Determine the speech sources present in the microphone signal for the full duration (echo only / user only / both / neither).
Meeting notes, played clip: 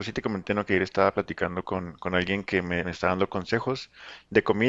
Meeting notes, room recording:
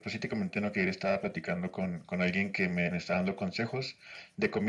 echo only